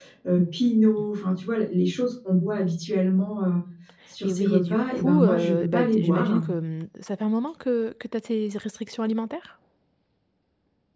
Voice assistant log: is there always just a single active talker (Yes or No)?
No